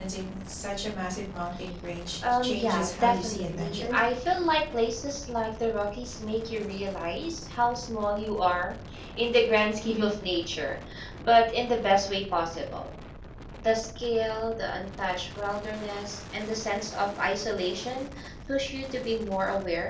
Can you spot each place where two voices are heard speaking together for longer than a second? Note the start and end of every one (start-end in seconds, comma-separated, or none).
2.4-4.0